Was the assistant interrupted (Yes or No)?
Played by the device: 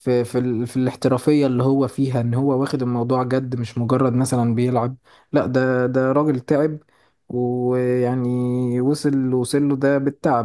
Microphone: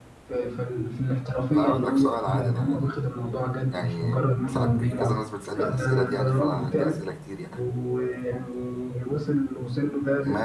Yes